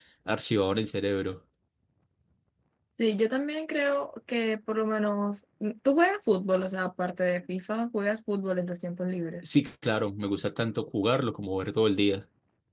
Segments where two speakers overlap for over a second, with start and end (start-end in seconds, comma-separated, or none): none